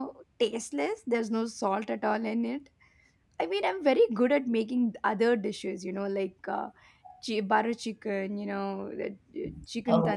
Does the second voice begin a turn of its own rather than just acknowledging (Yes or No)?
No